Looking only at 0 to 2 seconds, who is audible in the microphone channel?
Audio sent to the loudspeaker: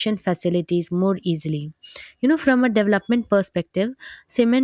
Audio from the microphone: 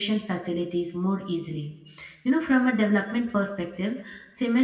echo only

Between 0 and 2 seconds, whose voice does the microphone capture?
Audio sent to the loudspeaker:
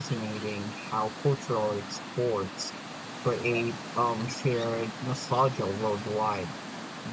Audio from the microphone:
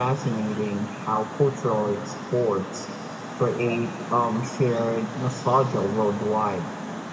echo only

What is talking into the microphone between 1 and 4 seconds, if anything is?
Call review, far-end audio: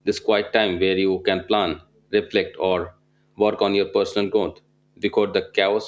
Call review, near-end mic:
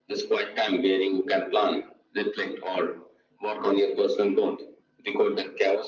echo only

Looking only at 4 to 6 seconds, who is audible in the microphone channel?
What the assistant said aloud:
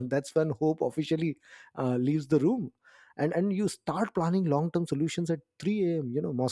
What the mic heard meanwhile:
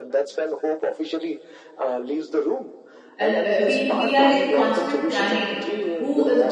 both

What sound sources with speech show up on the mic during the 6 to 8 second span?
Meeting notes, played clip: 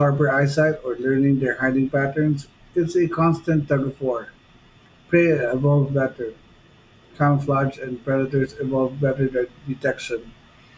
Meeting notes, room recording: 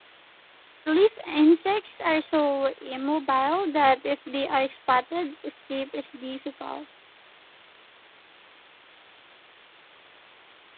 user only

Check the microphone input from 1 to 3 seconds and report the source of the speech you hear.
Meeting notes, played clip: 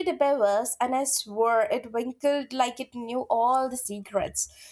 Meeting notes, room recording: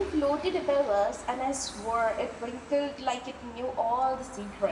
echo only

